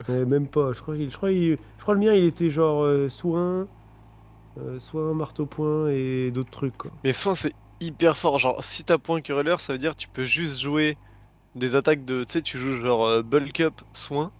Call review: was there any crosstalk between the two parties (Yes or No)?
No